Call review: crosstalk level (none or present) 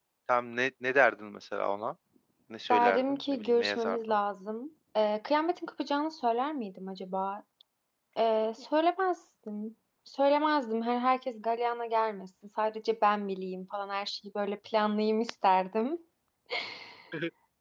present